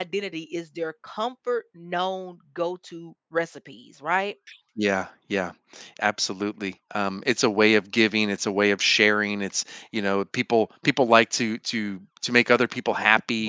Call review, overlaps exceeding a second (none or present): none